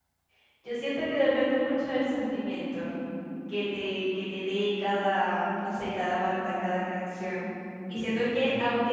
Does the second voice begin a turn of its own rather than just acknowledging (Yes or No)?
No